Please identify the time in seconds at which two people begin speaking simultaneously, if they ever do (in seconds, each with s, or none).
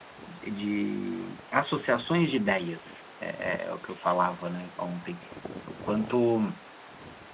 none